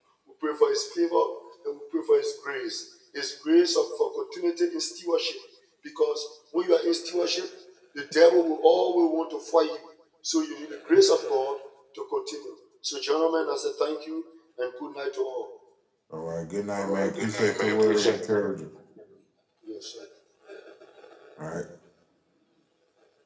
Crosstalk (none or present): present